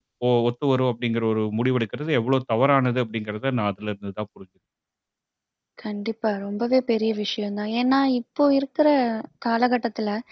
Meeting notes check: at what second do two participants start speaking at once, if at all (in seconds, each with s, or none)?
none